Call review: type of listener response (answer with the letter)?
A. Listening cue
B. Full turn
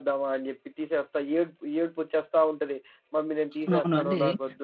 B